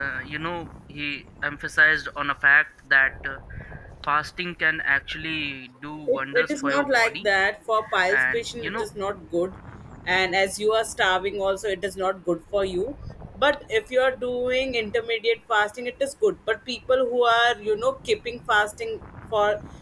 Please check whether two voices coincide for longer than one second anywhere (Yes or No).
Yes